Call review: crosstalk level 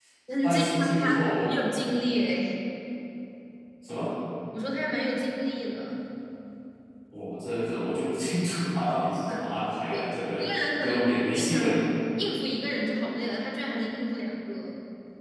present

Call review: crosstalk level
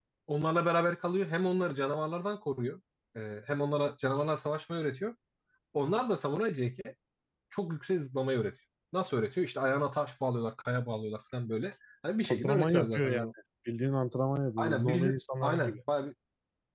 present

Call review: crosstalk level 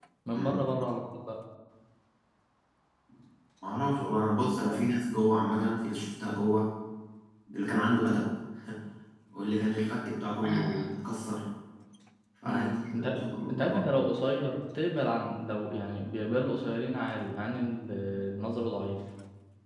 present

